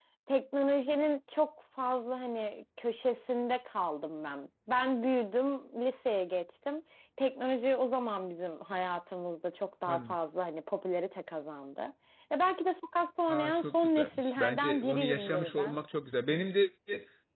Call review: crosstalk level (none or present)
present